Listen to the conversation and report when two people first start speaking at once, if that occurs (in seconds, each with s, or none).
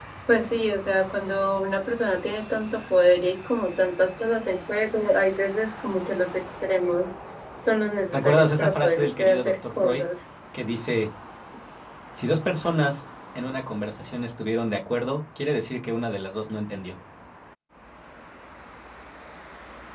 8.1 s